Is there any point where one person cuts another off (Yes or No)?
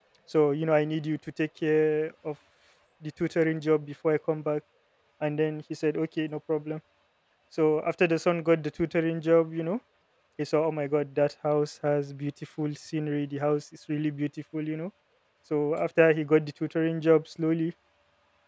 No